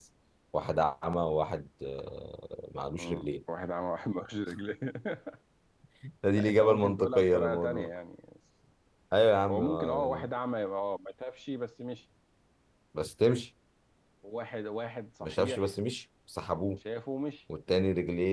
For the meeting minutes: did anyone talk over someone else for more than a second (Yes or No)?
Yes